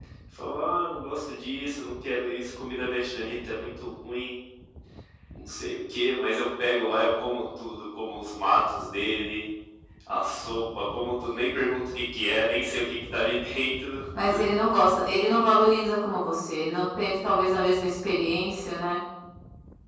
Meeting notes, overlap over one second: none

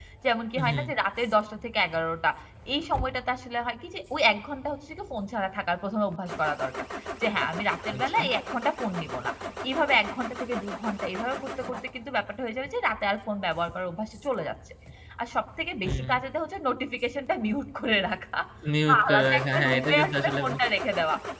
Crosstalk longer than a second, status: present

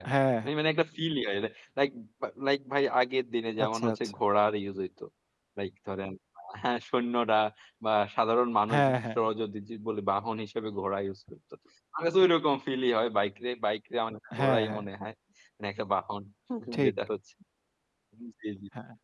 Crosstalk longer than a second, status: none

